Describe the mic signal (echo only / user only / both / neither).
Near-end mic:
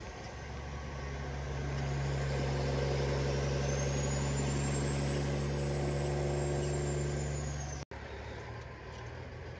neither